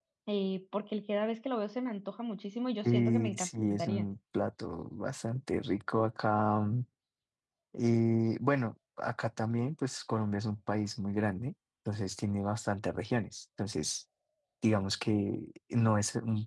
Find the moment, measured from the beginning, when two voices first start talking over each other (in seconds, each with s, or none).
2.8 s